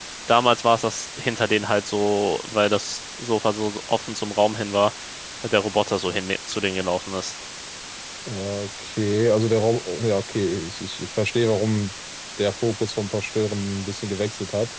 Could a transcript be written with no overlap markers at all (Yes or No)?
Yes